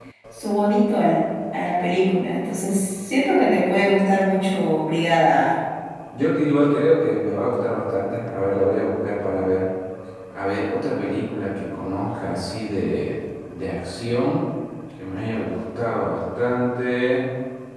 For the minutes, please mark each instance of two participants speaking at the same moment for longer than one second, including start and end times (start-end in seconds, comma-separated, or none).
none